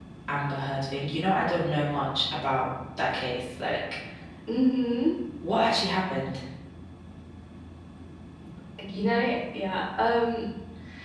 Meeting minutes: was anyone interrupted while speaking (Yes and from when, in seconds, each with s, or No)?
No